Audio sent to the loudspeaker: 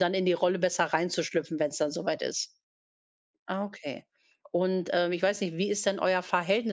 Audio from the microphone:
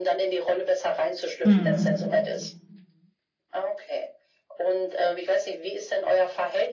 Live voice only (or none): Mhm.